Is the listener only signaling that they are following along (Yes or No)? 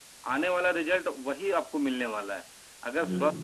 Yes